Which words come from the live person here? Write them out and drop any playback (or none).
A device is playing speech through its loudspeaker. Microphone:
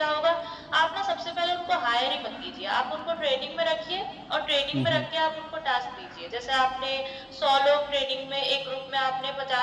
हुँ, हुँ।